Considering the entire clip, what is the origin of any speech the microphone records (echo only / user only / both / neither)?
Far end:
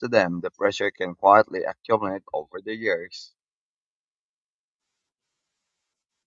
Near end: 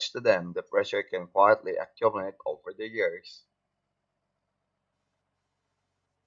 echo only